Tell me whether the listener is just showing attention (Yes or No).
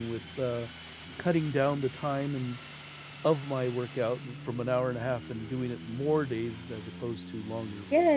No